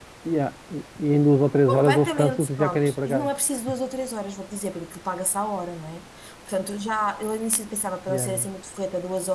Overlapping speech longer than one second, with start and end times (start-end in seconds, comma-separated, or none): 1.7-3.3